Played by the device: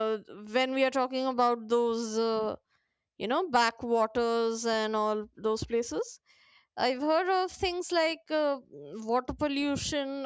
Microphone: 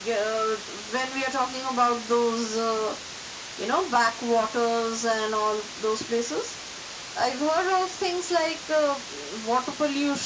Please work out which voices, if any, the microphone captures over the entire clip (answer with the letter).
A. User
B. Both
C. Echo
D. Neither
C